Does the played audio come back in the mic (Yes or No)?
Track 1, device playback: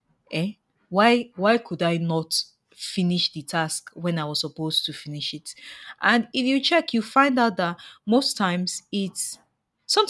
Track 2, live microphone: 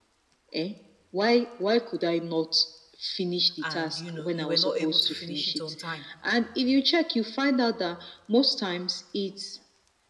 Yes